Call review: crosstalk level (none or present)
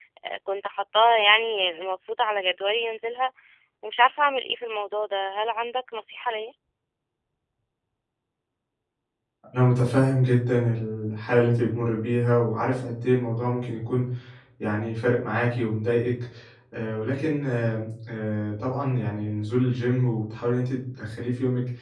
none